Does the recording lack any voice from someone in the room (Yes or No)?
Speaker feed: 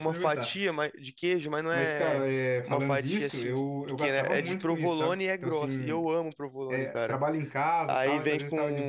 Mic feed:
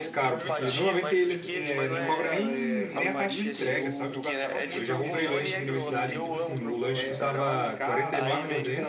No